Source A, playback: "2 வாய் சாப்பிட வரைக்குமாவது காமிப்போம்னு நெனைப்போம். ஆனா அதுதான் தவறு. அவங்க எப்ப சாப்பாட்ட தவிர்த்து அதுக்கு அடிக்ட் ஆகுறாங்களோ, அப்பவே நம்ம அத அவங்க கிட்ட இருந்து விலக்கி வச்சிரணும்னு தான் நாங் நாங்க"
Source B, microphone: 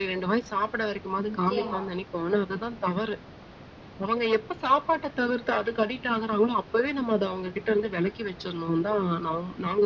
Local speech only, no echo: நிச்சயமா.

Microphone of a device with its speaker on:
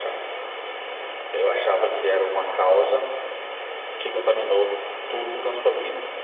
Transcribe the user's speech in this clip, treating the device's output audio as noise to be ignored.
none

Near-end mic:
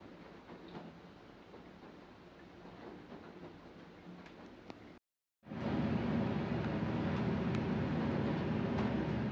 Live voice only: none

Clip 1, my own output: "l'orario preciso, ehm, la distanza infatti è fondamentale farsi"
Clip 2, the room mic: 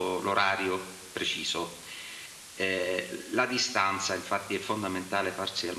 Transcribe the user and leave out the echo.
none

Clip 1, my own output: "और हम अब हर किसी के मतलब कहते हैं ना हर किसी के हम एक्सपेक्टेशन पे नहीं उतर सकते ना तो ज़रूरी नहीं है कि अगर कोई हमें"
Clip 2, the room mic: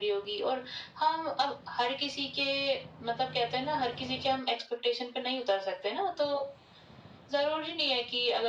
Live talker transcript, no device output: none

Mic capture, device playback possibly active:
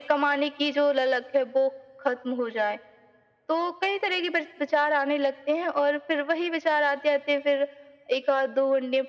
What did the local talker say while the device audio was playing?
none

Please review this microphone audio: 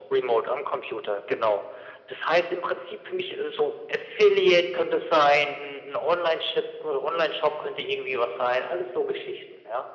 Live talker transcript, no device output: none

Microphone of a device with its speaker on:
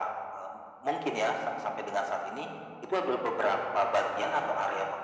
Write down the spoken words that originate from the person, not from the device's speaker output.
none

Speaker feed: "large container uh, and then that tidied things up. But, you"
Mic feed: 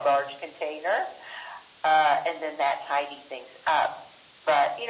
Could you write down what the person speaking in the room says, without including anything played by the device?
none

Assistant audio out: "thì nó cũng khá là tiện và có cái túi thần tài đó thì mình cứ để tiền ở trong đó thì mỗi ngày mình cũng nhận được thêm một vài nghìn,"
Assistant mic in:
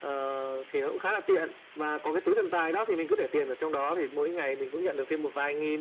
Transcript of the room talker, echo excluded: none

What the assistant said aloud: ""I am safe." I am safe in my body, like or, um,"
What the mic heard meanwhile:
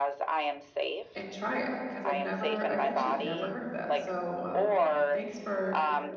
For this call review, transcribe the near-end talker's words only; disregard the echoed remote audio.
and try it because 'cause I've never I've actually never heard of that, so, um, thanks for

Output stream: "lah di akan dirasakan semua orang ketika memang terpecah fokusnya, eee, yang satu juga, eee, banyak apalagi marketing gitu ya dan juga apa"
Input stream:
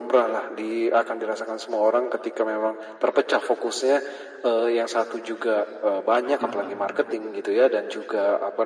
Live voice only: Oh kenapa tuh?

